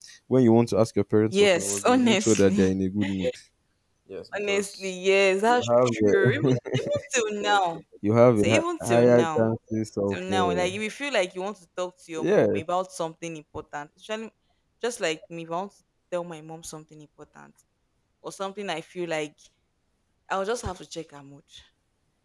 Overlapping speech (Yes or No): Yes